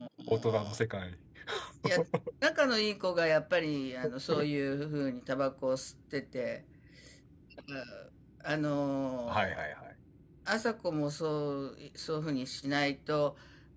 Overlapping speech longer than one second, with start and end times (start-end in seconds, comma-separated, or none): none